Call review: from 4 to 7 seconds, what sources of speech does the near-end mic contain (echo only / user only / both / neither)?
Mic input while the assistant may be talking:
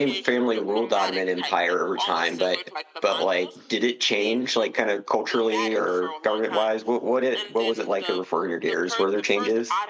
both